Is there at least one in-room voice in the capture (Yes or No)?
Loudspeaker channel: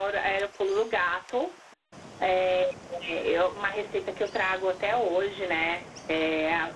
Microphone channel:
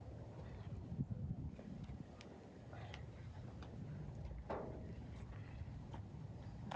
No